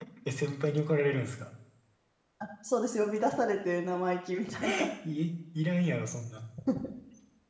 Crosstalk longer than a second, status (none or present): none